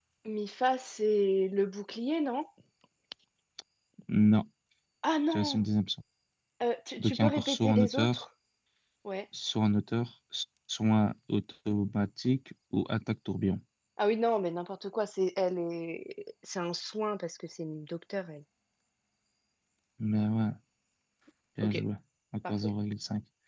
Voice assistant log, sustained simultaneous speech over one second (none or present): present